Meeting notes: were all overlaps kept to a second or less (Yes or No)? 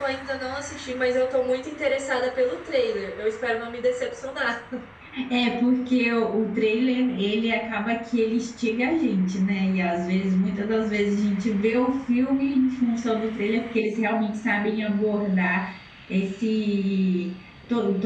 Yes